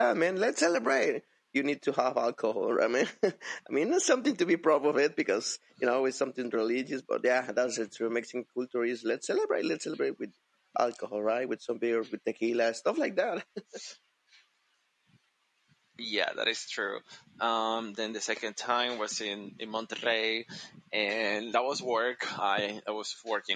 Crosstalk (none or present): none